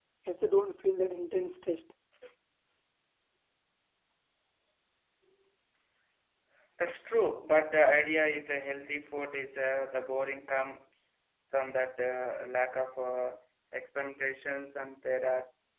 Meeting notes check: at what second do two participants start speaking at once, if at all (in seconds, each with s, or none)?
none